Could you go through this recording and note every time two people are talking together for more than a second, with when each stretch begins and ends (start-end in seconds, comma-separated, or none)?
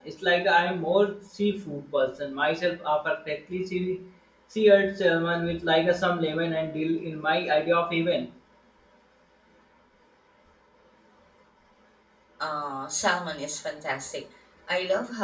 none